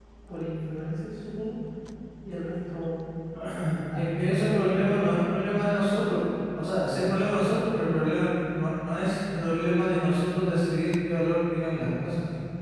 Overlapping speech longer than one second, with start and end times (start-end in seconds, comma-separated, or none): 4.0-5.2